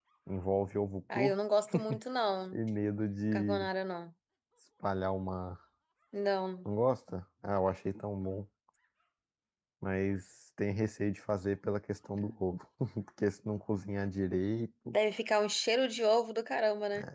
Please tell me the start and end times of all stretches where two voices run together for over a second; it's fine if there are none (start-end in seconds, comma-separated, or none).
none